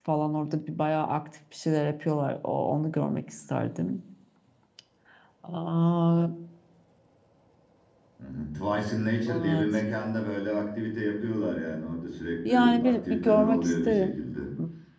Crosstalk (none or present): present